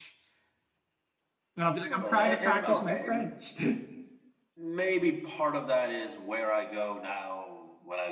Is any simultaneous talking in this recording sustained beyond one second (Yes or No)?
Yes